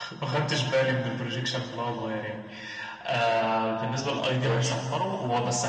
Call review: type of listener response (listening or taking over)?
listening